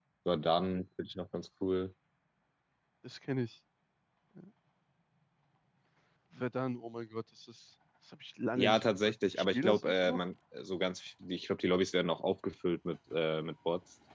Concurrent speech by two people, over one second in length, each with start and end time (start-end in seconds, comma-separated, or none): 8.6-10.2